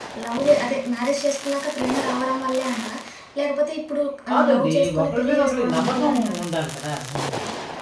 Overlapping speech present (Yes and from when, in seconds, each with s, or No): Yes, from 4.3 s